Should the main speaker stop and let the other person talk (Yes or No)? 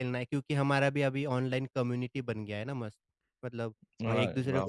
No